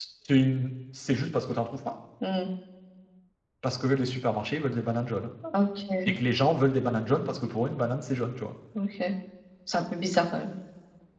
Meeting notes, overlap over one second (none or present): none